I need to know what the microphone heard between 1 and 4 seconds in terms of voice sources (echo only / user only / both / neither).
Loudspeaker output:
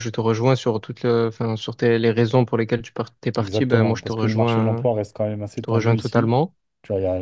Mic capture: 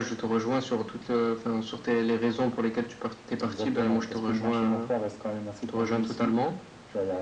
echo only